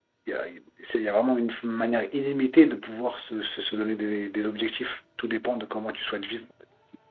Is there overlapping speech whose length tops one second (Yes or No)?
No